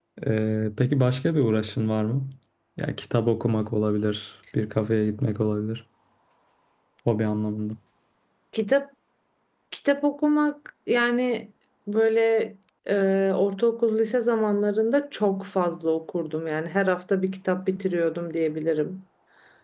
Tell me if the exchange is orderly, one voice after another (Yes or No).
Yes